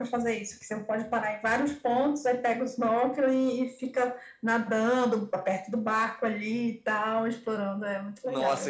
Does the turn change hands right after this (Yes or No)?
Yes